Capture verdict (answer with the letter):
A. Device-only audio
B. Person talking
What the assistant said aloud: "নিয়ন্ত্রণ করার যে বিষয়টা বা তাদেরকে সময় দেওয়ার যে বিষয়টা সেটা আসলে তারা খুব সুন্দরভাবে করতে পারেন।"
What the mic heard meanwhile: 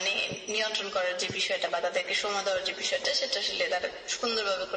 A